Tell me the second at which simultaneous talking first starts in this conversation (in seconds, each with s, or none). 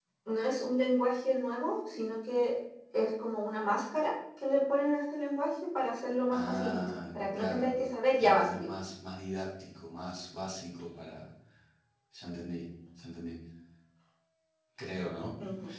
6.3 s